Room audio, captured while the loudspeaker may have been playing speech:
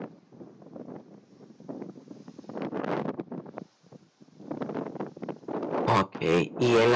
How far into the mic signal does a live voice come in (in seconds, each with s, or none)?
5.9 s